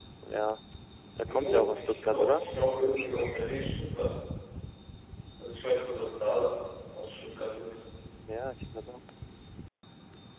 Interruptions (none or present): present